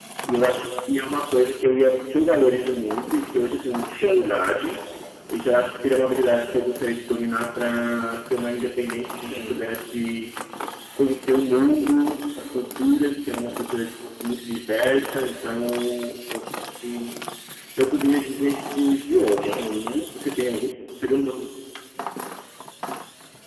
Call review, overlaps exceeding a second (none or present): none